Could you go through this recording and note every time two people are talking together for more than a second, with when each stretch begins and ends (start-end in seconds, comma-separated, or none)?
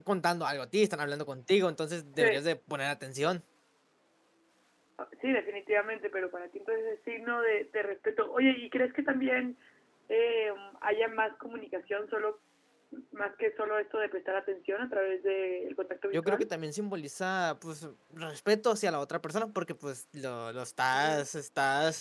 none